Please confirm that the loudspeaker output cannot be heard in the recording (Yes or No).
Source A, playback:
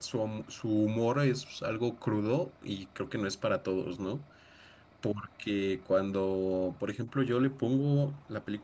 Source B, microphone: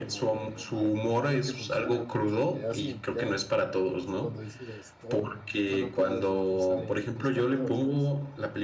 No